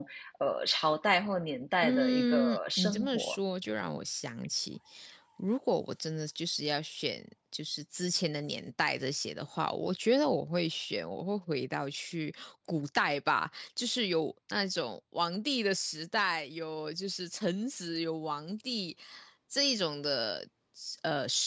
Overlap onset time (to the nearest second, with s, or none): 2 s